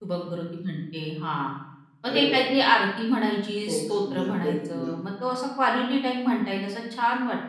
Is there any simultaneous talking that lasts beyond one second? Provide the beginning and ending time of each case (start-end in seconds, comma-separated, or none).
3.7-4.9